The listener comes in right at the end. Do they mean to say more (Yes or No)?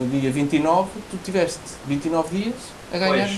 Yes